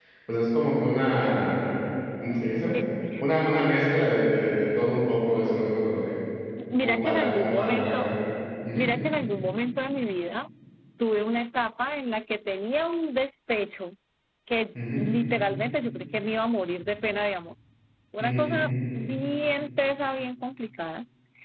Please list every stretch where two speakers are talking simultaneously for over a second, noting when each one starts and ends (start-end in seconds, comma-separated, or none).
6.8-8.1